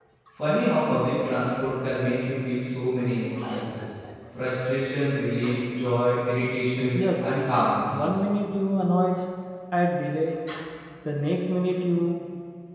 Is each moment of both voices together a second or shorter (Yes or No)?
Yes